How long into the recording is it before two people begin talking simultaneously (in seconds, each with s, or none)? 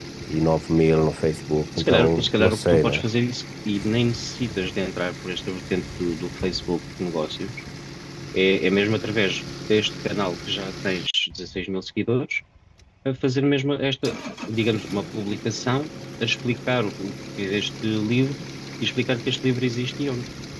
1.8 s